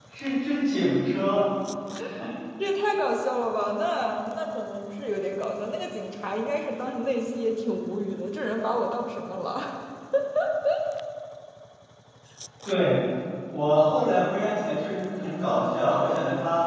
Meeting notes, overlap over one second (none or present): none